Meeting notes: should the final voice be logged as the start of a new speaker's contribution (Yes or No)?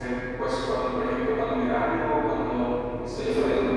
No